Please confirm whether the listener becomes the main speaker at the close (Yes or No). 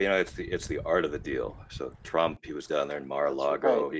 No